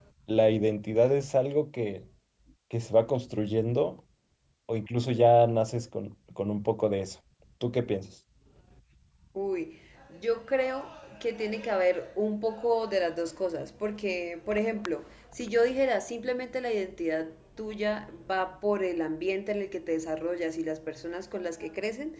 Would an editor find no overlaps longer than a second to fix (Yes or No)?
Yes